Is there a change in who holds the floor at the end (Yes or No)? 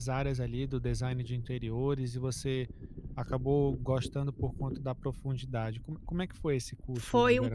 Yes